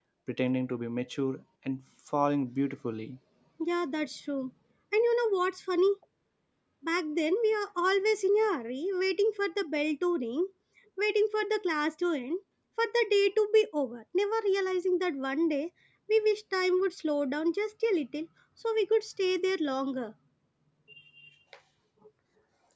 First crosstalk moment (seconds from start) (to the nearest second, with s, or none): none